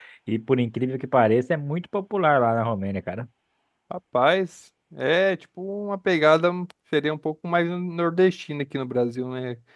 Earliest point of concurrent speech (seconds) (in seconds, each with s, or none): none